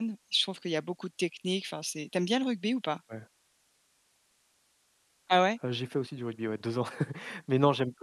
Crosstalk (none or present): none